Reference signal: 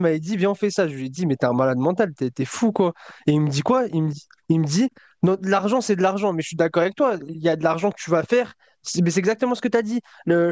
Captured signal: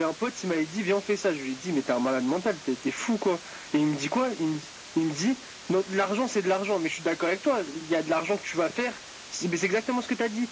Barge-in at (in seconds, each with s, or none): none